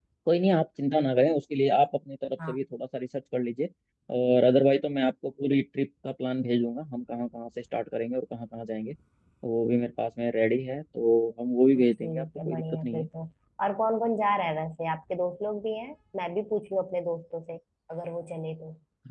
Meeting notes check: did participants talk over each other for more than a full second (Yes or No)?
Yes